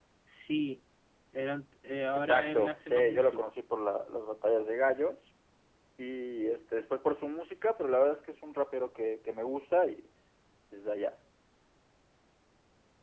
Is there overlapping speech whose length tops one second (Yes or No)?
Yes